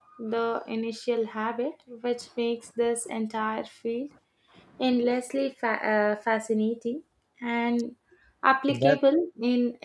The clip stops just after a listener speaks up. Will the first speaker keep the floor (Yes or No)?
Yes